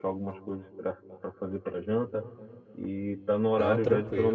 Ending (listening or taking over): listening